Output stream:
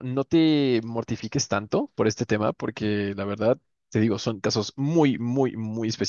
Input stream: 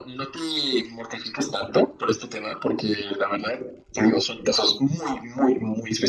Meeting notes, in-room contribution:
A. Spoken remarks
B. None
B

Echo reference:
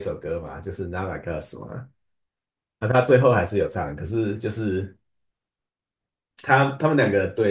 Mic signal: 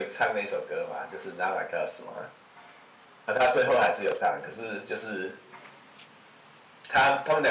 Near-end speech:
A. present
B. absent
B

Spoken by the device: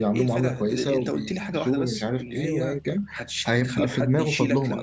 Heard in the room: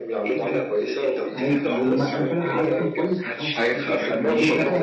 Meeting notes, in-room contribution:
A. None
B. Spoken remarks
B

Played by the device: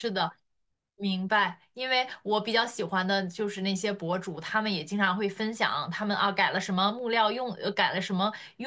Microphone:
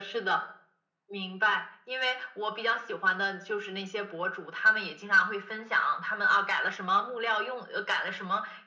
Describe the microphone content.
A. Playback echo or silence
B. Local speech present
A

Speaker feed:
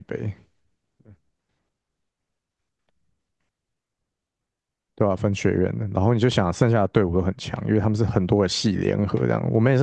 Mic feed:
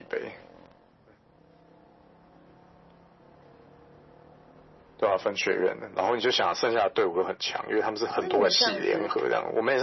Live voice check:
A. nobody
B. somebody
B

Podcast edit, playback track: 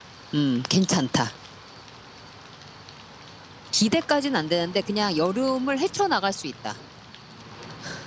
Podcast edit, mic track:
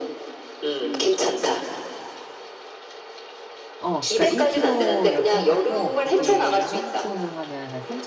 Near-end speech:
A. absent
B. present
B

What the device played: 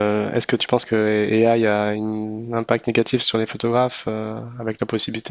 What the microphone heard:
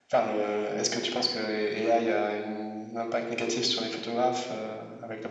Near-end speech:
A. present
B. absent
B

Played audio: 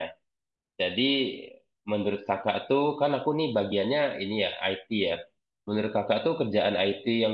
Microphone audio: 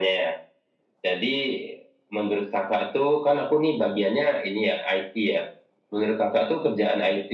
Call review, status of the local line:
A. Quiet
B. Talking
A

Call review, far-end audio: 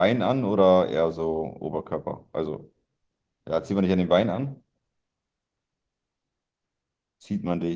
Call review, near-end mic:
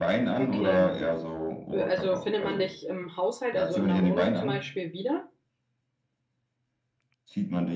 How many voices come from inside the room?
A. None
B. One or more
B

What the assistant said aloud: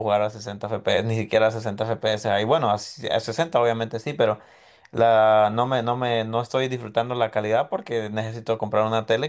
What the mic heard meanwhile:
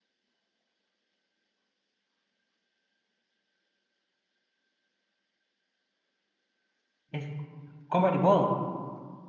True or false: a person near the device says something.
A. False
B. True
B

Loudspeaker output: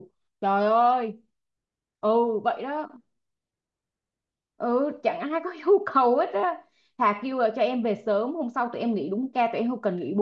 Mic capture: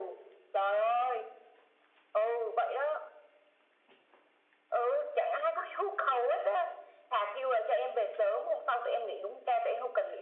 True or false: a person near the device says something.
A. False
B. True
A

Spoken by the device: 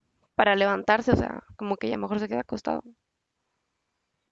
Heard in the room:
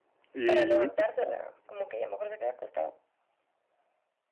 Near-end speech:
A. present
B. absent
A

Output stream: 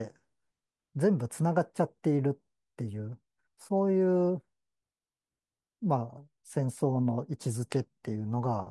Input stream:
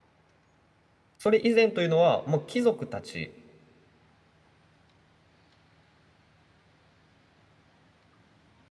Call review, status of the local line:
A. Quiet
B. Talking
B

